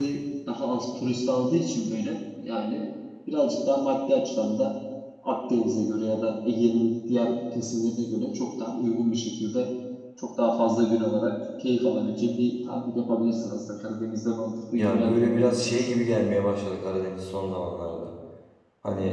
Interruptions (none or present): present